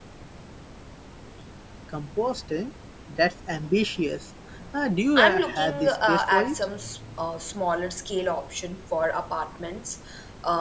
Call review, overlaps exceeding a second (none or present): present